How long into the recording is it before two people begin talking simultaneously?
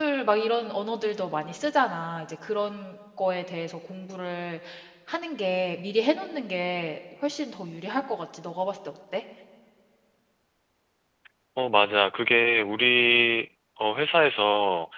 none

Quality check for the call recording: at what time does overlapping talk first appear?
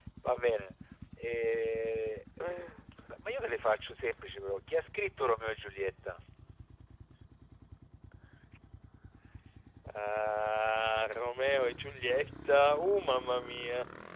none

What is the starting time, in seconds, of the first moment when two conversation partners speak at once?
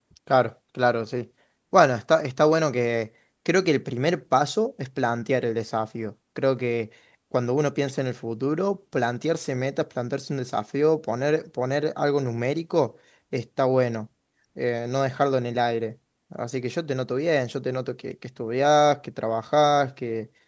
none

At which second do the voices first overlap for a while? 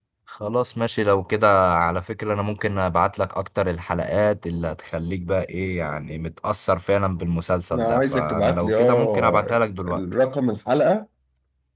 7.7 s

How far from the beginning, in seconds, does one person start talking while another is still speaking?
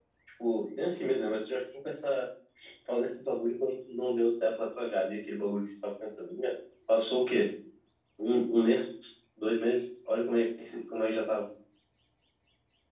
none

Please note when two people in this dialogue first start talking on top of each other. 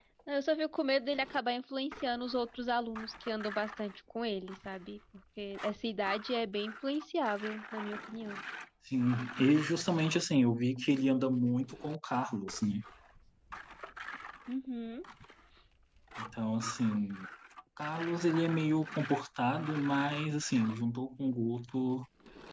none

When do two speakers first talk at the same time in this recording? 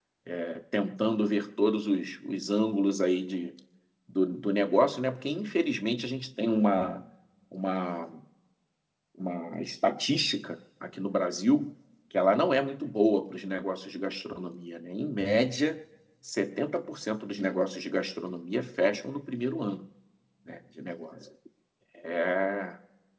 none

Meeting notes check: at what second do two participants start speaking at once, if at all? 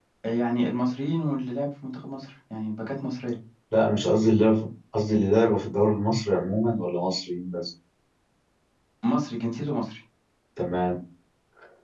none

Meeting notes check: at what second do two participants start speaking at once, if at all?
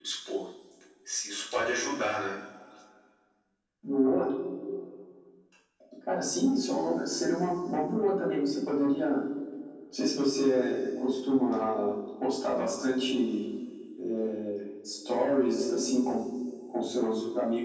none

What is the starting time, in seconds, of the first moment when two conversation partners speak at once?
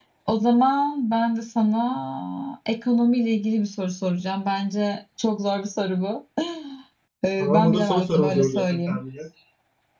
7.4 s

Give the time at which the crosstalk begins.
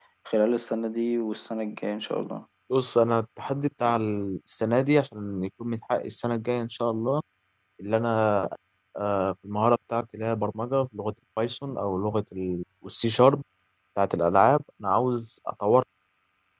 none

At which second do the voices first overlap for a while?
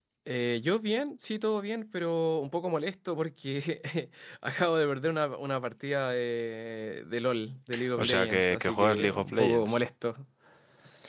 7.7 s

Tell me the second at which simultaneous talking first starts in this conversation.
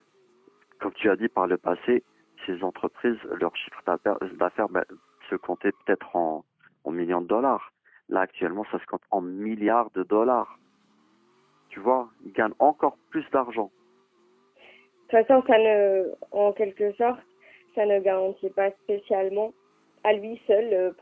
none

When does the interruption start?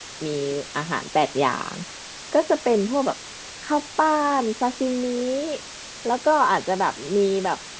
none

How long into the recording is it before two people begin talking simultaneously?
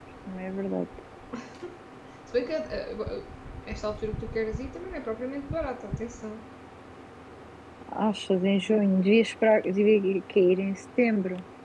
none

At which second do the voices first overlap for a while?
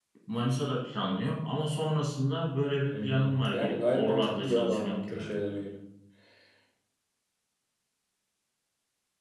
2.9 s

